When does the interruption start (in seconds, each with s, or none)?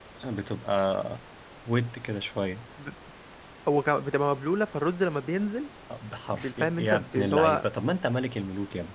6.3 s